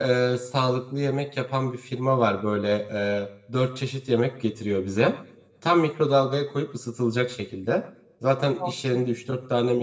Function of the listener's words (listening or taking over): listening